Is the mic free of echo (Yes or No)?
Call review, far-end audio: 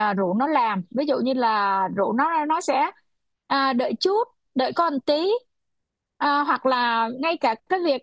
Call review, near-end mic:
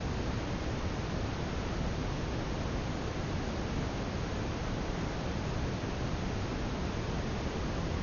Yes